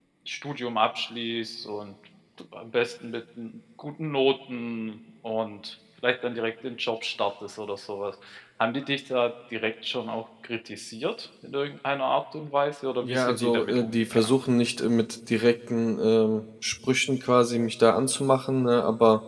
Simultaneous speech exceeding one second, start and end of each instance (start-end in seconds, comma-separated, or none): 13.0-14.3